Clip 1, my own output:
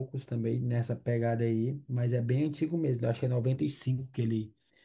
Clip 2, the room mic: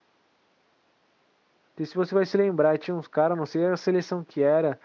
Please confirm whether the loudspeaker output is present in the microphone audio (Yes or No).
No